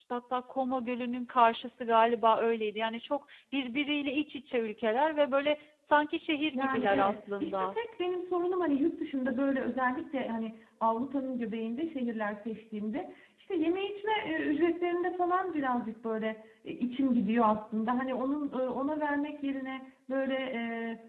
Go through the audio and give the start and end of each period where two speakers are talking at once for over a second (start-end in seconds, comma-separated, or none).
6.5-7.8